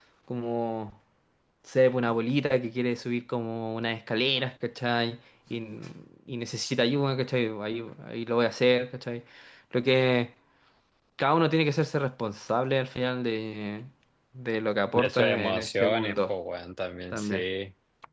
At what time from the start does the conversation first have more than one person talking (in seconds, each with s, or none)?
14.9 s